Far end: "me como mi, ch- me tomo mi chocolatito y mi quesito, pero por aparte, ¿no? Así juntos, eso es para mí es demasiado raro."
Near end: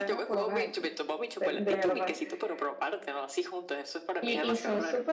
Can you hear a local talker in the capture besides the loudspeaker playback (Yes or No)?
Yes